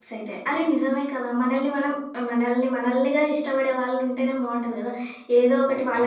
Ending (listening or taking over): listening